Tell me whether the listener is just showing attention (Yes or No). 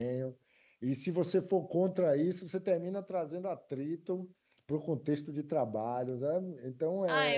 No